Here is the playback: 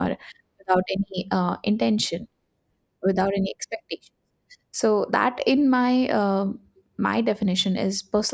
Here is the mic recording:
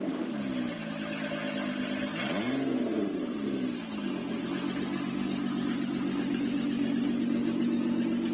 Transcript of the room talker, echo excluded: none

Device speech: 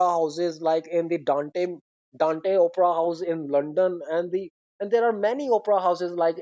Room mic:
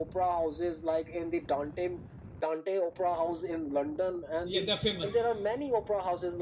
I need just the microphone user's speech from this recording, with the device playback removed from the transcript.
yeah. They're famous.

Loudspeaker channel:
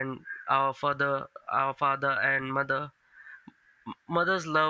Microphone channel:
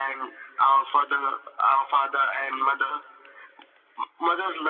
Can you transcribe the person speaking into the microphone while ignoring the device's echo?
none

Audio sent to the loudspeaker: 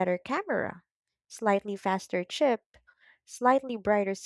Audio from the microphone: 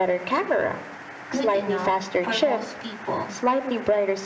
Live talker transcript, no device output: good enough for most people.

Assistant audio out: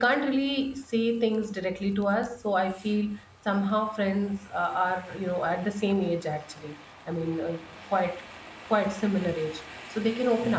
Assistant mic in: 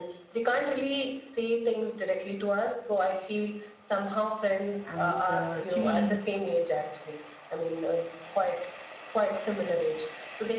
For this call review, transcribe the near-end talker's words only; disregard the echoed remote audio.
and uh, chilies.

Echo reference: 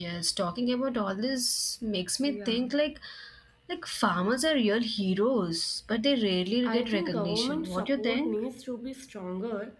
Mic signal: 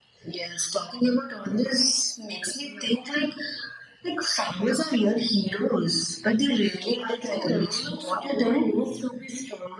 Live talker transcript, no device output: none

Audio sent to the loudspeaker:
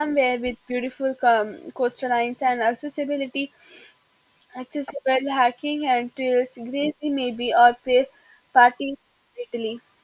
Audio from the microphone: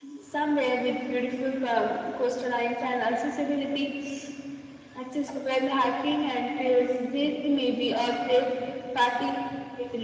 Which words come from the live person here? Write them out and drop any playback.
none

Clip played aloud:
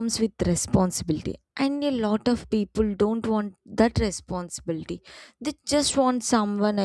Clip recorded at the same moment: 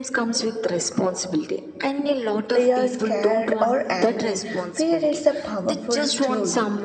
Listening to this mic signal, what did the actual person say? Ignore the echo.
they are scared or angry. Fear is a powerful tool.

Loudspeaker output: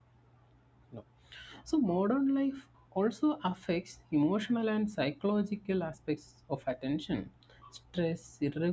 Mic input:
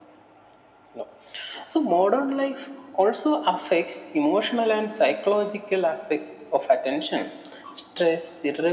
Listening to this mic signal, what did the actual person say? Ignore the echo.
none

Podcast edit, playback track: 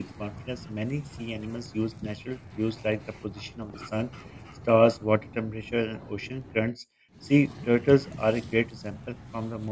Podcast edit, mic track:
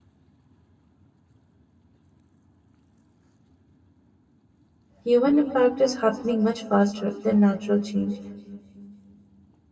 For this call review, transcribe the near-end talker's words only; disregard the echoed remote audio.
Human impact is happening much faster than natural change,

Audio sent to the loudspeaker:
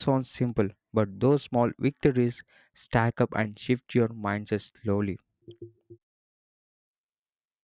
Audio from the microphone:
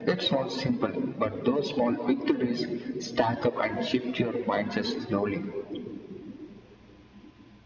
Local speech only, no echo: none

